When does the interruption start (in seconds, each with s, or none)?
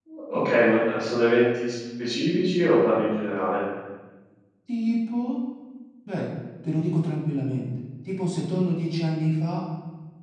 none